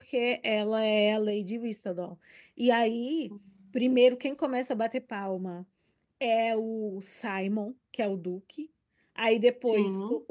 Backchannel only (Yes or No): Yes